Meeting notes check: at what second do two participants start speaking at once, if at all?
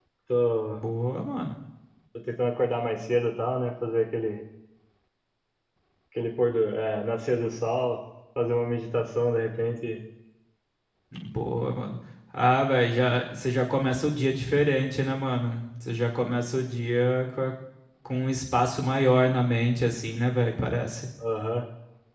none

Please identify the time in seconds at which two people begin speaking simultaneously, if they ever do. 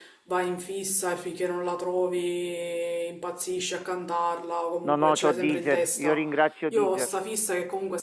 5 s

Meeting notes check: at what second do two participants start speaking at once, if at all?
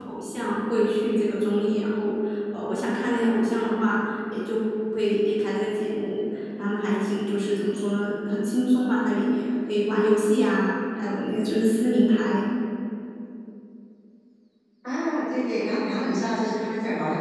none

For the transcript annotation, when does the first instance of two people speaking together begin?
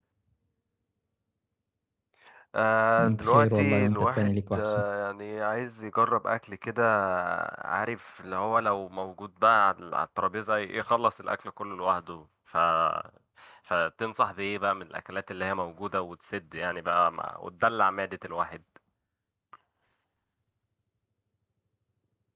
3 s

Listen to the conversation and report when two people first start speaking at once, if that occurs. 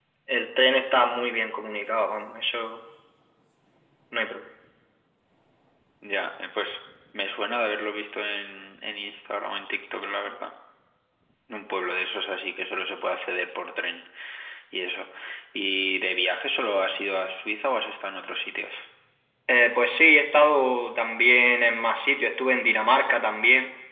none

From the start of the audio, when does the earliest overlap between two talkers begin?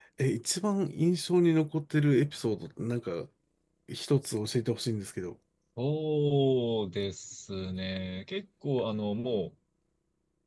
none

